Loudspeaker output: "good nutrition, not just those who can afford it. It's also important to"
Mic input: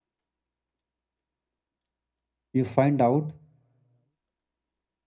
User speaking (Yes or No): Yes